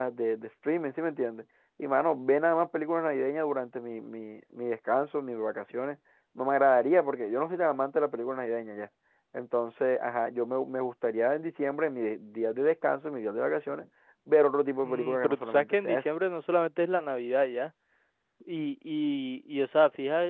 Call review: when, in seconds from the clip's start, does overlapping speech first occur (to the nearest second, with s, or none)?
15 s